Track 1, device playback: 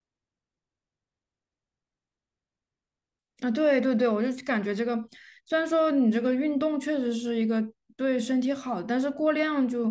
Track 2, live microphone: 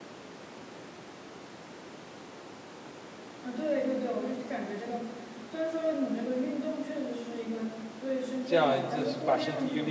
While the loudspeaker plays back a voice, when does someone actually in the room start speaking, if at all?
8.4 s

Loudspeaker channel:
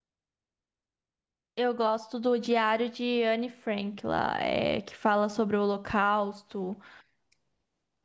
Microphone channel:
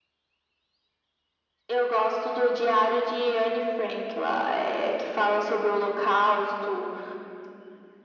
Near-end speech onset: none

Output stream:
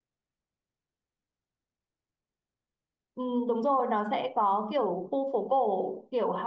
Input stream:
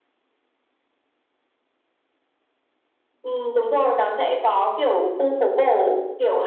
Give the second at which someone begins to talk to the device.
none

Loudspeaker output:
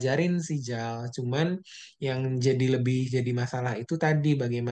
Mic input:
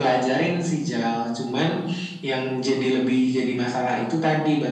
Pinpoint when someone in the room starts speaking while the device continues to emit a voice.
none

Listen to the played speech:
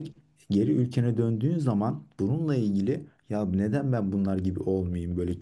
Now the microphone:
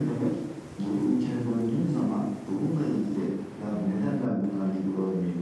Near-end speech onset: none

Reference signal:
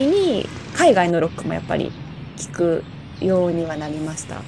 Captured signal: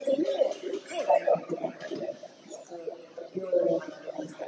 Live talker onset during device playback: none

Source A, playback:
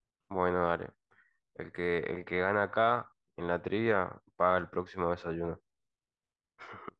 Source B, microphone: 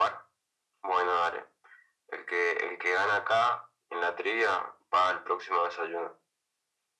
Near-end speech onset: none

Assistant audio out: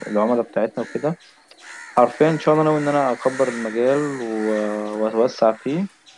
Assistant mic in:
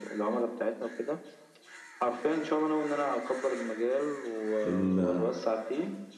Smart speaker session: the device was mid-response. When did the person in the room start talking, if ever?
4.6 s

